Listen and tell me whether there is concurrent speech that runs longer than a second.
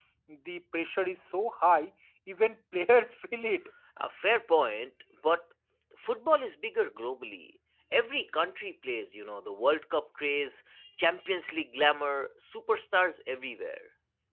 No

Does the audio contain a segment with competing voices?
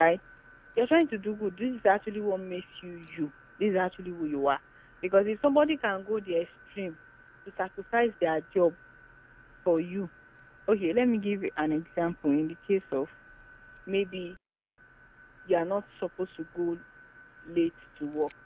No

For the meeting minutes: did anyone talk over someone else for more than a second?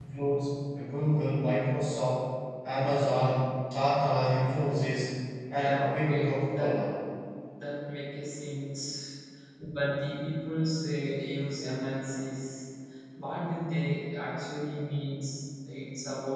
Yes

